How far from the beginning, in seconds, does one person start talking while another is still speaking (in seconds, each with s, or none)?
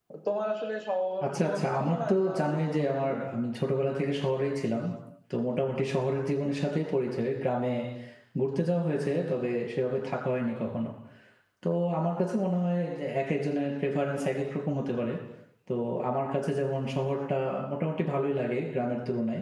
1.2 s